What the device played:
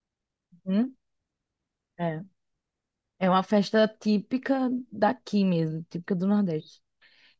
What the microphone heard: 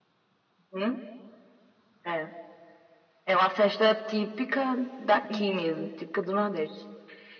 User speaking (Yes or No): Yes